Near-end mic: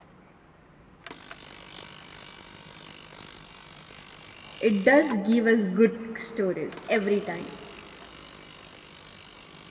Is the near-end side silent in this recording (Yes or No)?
No